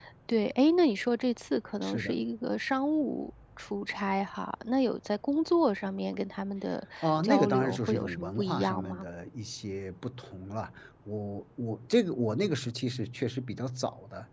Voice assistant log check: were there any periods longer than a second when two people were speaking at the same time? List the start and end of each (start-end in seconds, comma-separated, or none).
7.0-9.1